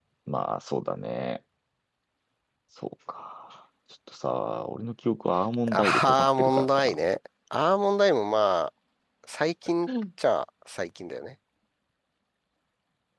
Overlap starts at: 6 s

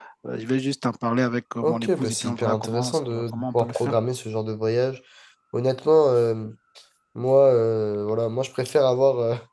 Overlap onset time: 2 s

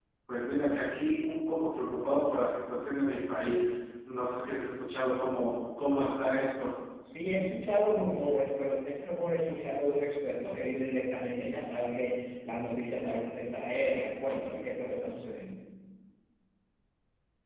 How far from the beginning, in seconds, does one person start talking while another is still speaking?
none

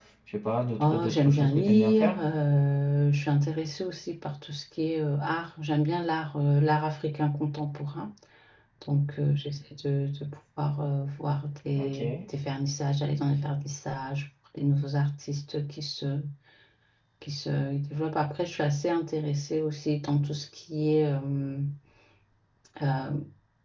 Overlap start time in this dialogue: 1 s

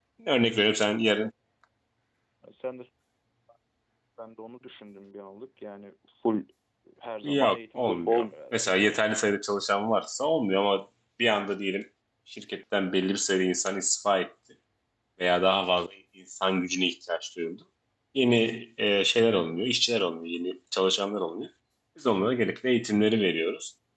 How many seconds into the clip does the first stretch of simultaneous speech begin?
7 s

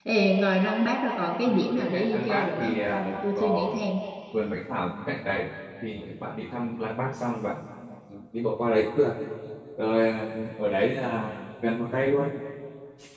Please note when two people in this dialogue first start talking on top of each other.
1 s

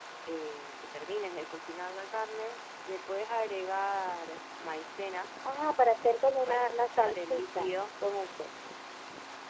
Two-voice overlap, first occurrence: 6 s

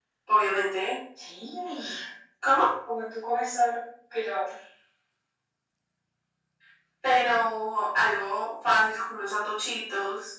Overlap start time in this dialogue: none

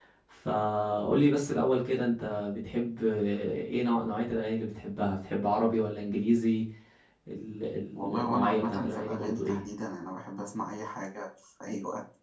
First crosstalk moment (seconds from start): 8 s

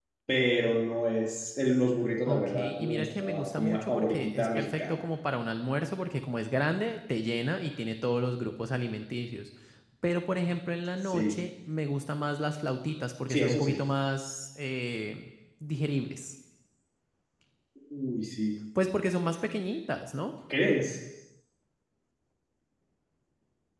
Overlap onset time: 2 s

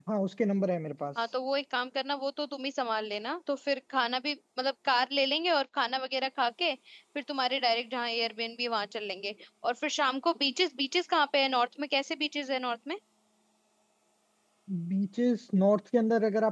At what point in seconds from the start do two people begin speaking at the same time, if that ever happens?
none

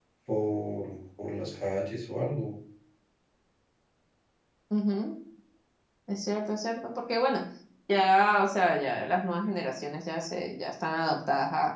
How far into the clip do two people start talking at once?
none

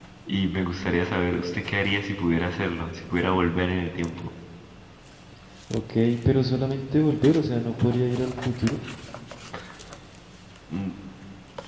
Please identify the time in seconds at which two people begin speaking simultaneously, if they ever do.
none

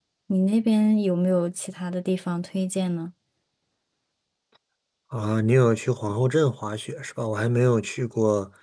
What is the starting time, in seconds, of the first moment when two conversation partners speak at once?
none

